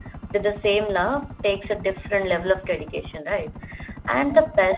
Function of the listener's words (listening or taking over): listening